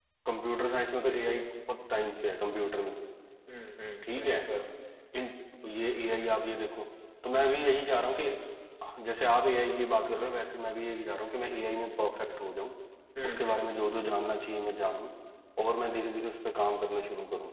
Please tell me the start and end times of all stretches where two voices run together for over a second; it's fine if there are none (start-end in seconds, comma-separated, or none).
none